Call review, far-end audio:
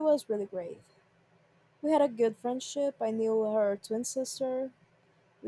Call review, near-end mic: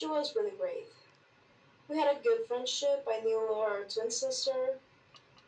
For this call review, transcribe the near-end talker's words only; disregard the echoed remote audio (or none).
none